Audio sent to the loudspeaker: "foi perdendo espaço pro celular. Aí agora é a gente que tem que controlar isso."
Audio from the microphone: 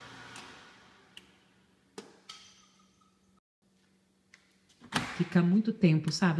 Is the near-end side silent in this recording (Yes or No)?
No